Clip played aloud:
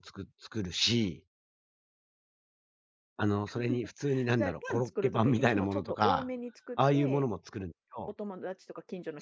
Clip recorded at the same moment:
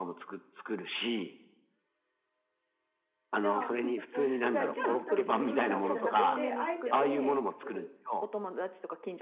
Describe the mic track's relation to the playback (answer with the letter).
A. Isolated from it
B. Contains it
B